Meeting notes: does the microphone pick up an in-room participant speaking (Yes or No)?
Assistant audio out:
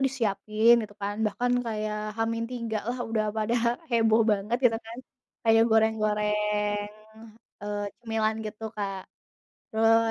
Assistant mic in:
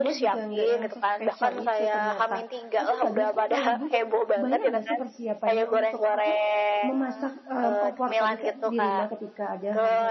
Yes